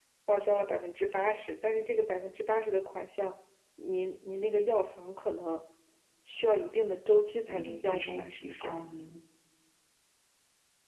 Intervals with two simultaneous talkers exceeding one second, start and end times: 7.5-8.8

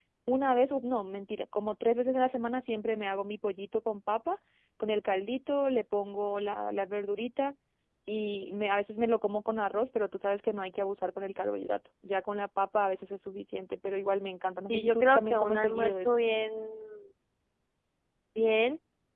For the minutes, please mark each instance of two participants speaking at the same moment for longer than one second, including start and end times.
14.7-16.2

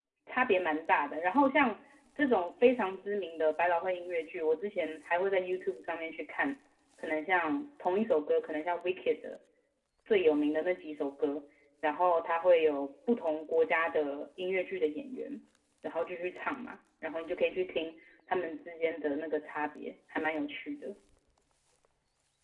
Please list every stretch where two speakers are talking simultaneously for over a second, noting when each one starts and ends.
none

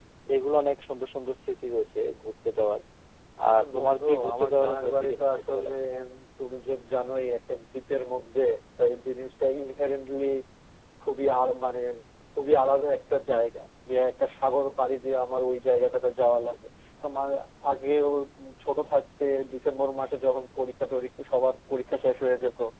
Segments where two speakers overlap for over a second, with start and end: 3.6-5.7

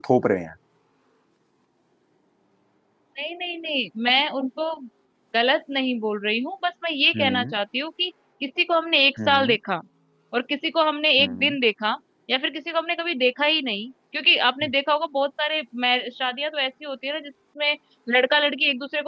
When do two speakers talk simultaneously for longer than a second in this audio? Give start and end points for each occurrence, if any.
none

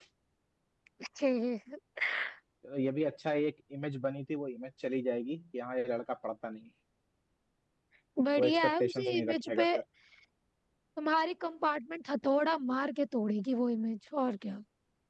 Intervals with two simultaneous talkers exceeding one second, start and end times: 8.4-9.7

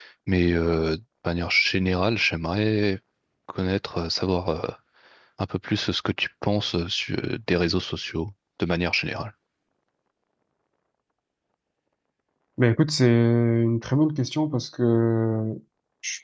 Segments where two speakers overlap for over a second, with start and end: none

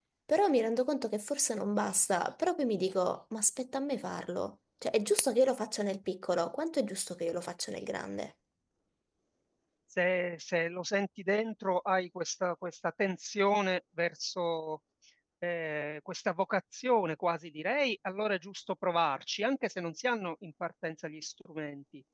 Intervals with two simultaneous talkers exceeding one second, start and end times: none

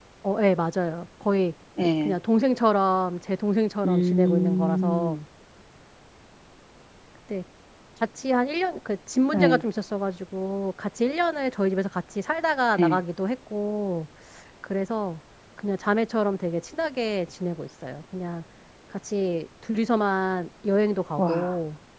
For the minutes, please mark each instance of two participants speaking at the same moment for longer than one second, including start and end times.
3.8-5.2

